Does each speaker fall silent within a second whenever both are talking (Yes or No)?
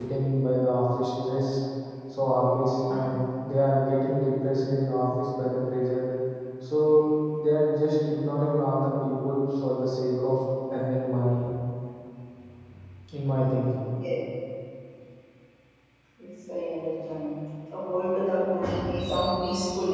Yes